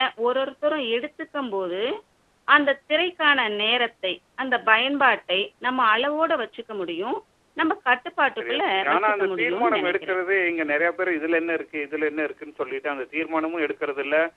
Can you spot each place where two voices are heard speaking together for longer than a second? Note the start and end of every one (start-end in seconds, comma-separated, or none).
8.4-10.2